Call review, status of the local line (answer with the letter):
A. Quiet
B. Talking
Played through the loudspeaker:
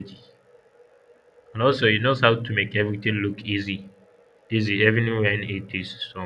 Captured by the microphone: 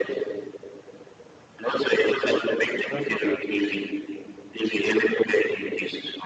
B